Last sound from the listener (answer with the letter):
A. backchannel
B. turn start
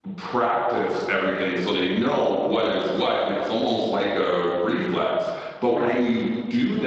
A